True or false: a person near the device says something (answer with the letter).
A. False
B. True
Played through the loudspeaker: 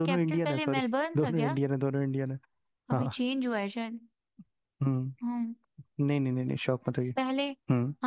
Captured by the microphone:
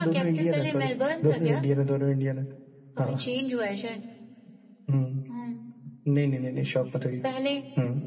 A